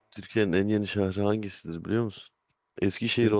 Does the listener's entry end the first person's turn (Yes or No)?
No